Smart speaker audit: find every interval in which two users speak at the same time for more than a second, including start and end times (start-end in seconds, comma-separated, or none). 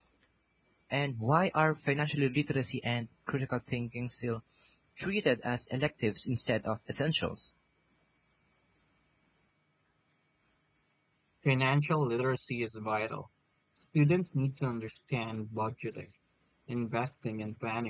none